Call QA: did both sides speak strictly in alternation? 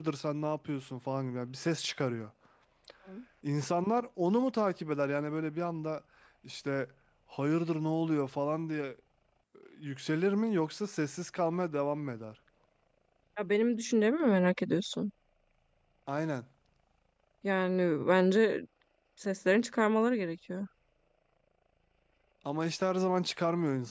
Yes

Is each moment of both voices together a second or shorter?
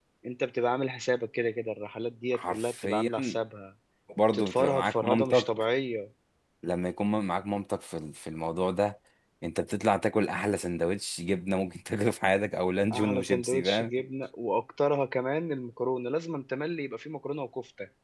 No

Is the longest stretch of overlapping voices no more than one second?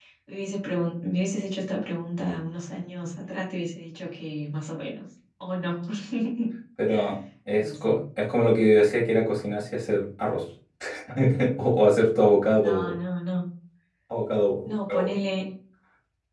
Yes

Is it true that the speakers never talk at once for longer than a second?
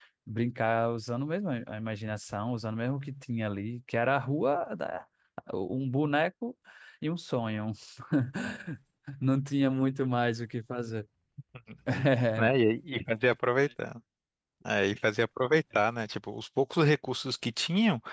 Yes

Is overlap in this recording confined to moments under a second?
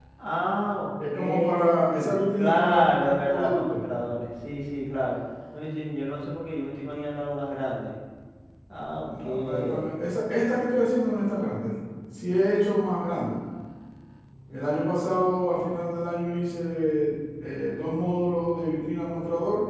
No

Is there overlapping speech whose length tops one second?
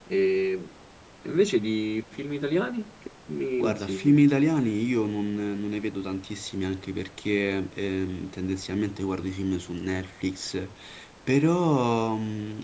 No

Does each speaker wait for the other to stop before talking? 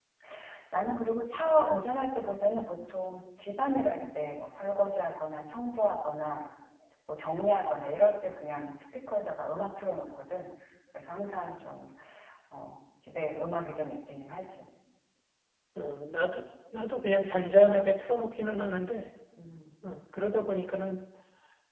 Yes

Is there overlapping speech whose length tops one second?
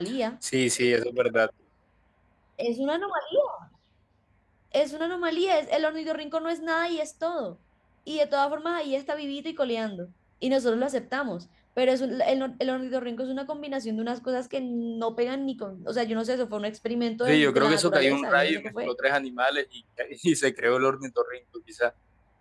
Yes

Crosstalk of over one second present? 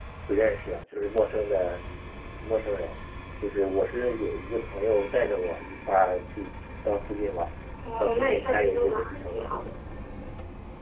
Yes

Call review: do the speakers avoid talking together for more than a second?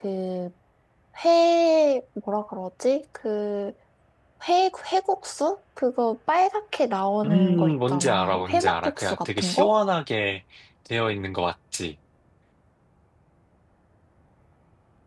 No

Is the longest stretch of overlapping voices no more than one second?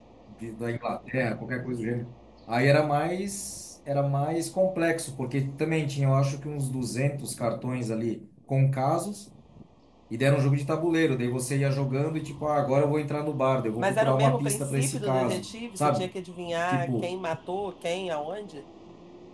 No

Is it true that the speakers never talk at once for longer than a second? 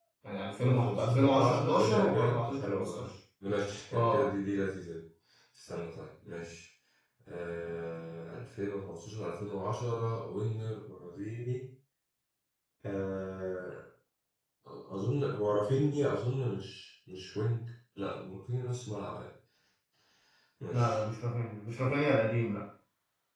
No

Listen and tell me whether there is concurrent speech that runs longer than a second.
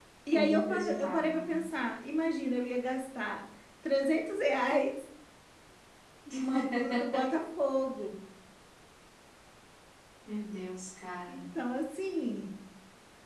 Yes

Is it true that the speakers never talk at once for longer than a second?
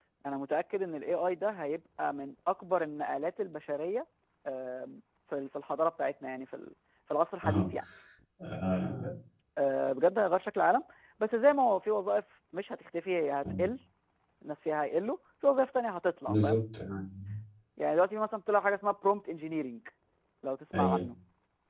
Yes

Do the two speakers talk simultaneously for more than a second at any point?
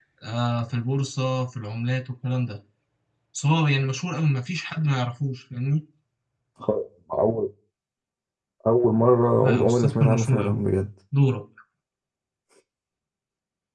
Yes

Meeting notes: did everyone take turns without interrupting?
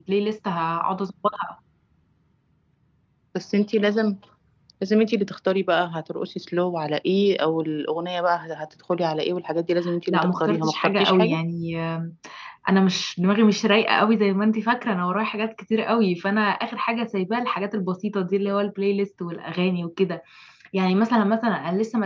No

